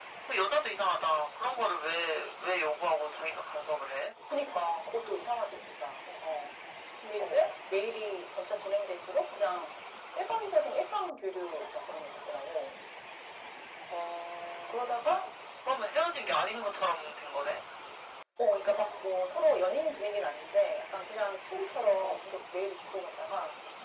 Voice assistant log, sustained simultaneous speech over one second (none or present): none